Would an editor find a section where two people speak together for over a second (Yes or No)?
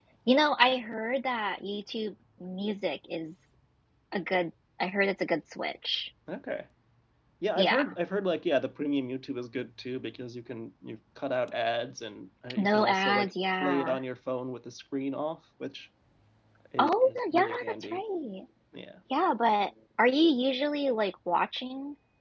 Yes